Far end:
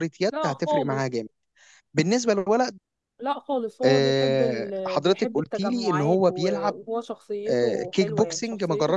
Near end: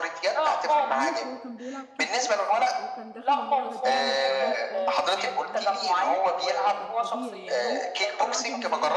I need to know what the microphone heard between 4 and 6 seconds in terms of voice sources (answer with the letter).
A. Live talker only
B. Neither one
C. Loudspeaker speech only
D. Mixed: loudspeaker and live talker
D